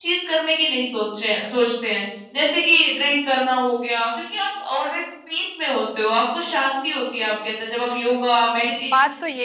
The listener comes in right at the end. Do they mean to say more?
Yes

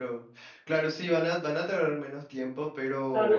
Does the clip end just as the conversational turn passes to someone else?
Yes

